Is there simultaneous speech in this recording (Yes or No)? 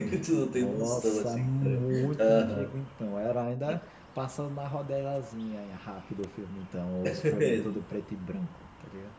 Yes